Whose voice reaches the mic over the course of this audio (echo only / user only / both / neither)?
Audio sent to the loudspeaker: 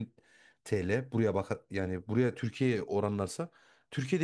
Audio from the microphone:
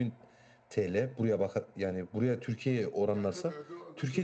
both